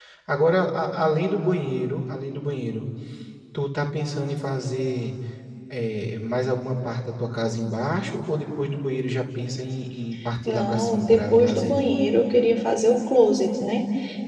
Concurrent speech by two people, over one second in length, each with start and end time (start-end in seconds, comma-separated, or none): 10.5-11.8